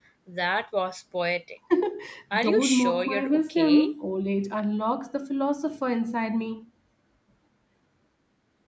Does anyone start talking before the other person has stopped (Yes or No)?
Yes